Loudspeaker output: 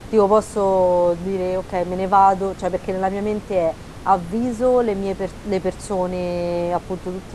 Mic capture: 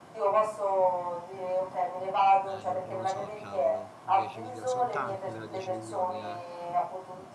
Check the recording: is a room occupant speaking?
Yes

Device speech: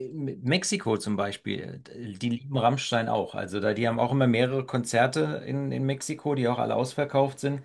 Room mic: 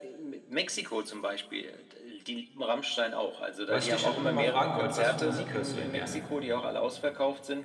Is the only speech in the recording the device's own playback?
No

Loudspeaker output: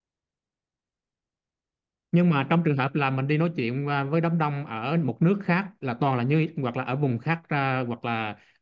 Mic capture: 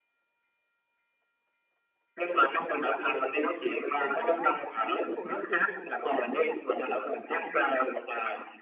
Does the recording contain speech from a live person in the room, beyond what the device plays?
Yes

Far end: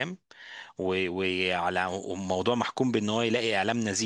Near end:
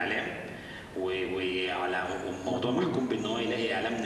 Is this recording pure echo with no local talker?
No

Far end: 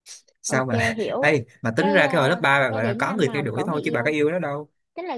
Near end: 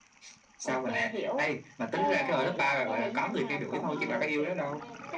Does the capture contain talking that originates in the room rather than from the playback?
Yes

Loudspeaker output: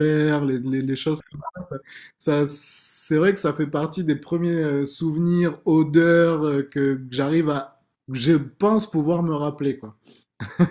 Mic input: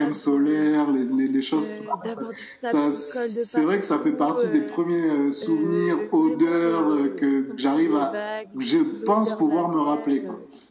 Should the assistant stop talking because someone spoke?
Yes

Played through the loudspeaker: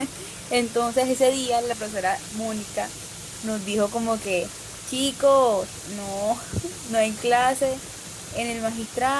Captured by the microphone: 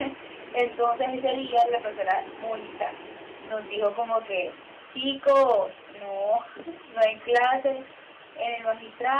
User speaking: No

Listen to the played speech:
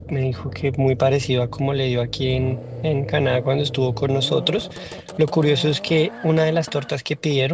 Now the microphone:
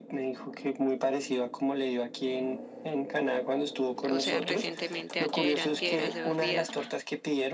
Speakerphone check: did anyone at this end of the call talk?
Yes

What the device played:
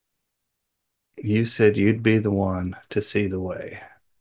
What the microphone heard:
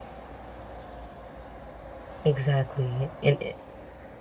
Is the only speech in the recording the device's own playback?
No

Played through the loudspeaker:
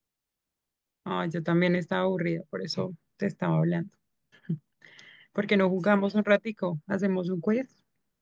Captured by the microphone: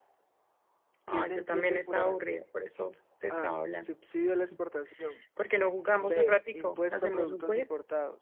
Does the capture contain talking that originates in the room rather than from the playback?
Yes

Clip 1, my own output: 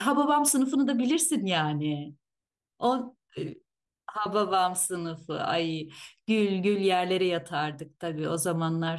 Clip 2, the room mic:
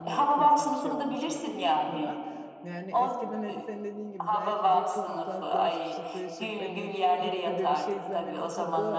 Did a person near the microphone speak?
Yes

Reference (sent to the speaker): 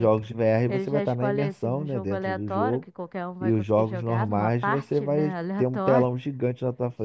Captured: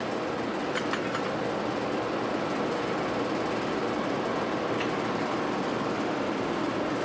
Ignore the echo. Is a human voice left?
No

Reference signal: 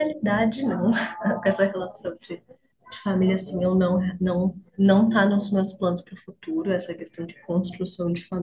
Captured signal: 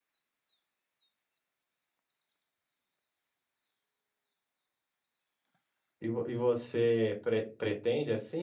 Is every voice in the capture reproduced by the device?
No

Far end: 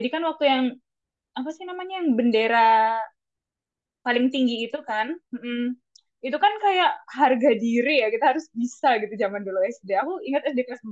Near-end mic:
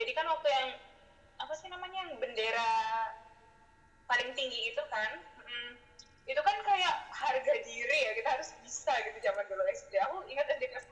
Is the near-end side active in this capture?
No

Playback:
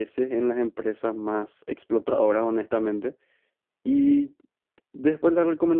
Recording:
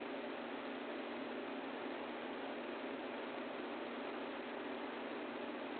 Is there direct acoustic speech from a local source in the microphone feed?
No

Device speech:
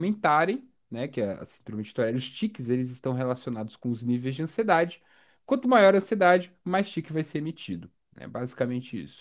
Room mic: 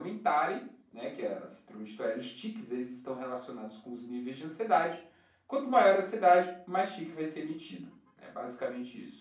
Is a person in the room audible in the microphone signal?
No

